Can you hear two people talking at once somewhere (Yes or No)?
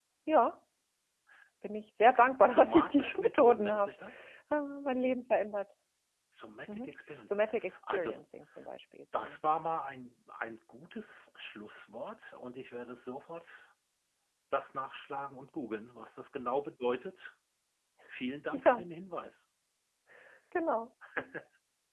Yes